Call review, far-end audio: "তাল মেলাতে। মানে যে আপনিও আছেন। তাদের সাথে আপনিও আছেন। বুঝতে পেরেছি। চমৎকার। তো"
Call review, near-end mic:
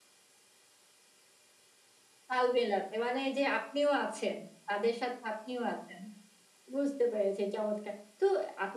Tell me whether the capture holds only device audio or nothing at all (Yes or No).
Yes